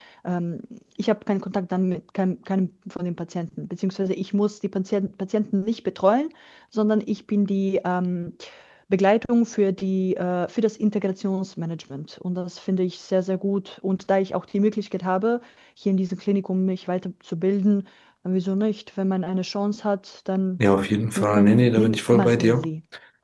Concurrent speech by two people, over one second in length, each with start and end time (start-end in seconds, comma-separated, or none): 21.2-22.6